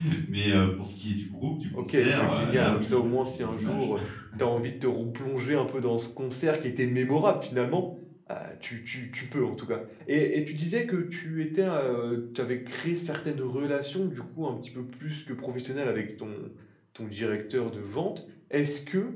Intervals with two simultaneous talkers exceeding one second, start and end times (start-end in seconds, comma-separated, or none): 1.8-3.9